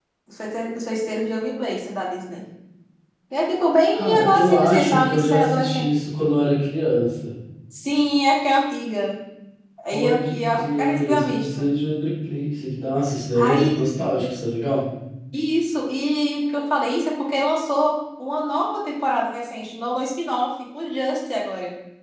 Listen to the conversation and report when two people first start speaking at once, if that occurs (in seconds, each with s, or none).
3.9 s